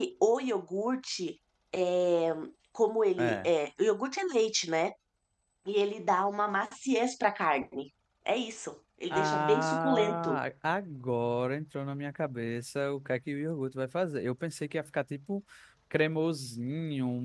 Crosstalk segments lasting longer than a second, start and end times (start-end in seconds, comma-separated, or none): 9.1-10.4